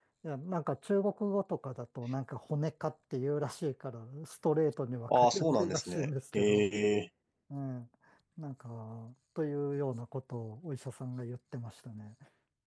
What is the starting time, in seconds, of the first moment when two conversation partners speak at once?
5.1 s

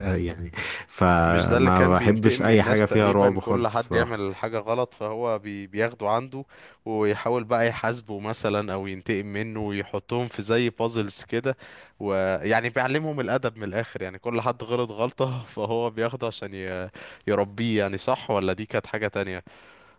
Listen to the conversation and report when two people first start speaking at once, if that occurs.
1.3 s

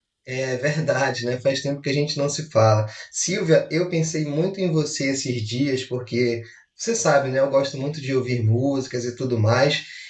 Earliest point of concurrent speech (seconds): none

